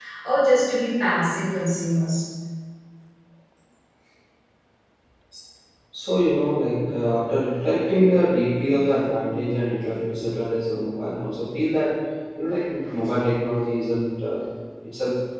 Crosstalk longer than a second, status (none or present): none